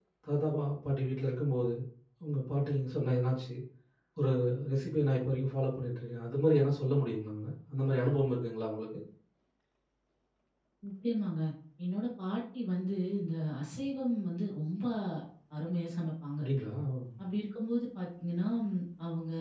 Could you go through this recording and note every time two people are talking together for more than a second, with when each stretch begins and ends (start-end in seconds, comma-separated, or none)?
none